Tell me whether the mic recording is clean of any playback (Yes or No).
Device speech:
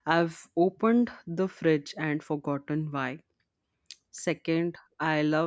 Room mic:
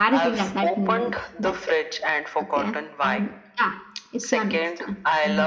No